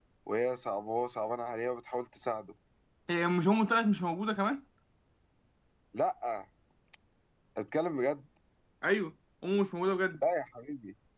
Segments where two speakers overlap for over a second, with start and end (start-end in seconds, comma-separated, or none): none